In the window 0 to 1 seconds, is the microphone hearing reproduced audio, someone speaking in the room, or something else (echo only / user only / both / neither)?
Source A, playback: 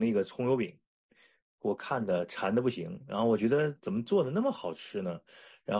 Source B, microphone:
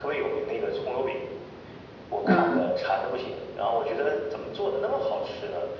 echo only